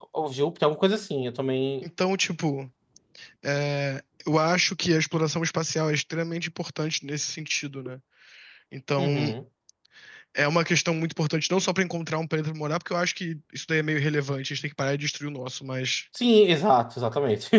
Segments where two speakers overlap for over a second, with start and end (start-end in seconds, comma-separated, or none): none